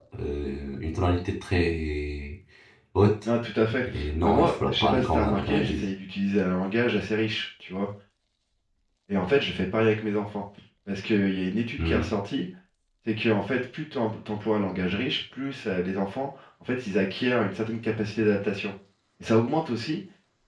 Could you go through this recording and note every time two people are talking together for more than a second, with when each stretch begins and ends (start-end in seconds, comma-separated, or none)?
3.9-5.9